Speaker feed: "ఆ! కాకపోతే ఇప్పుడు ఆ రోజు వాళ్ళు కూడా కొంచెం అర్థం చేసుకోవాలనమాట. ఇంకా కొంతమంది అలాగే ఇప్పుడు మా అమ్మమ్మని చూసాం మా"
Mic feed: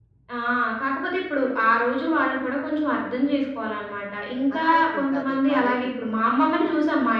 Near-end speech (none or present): present